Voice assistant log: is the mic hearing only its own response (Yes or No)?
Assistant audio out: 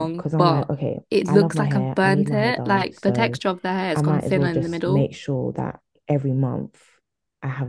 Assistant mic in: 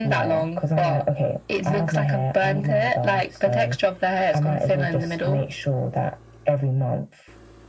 Yes